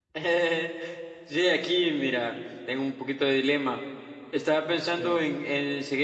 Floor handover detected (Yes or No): No